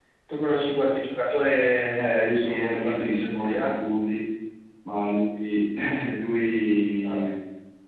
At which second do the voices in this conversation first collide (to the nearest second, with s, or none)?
2 s